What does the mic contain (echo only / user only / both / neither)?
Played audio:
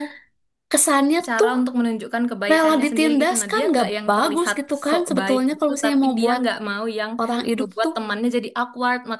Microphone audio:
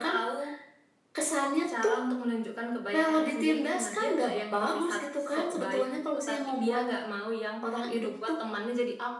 echo only